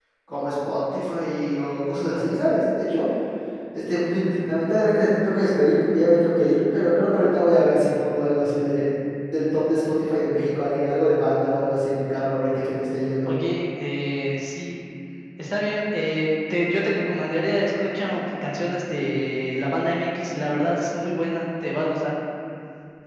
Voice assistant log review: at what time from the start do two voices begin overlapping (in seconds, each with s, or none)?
none